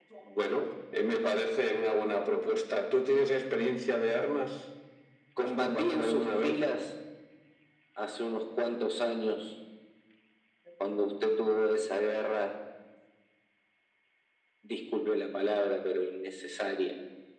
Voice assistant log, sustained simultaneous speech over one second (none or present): present